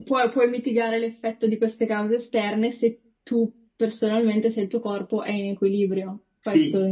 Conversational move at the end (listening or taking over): taking over